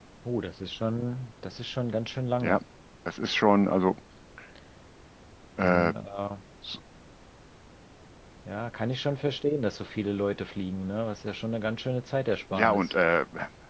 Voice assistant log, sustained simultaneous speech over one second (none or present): none